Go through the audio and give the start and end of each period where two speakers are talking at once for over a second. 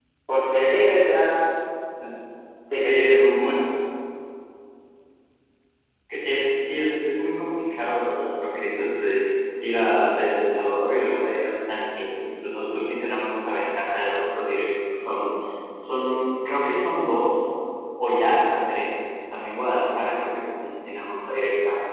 none

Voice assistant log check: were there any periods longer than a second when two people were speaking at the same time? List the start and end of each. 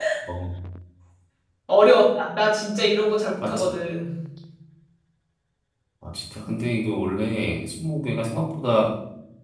none

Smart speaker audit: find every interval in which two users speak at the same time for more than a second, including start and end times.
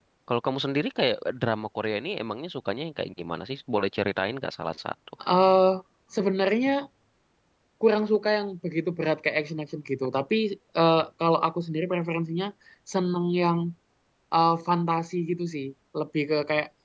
none

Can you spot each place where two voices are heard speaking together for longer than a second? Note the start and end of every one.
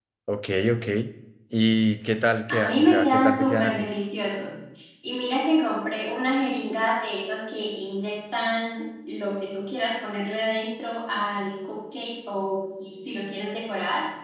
2.5-3.9

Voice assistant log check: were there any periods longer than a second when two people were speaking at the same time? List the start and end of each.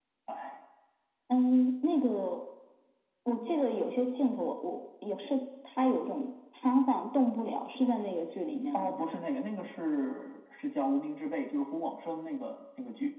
none

